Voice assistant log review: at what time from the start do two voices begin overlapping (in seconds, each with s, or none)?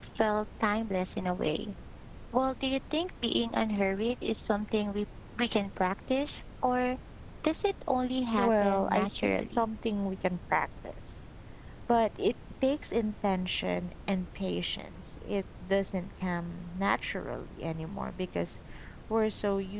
8.4 s